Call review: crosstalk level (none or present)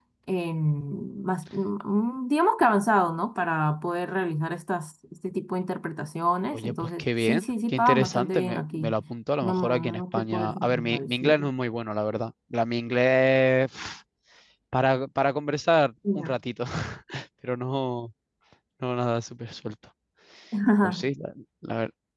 present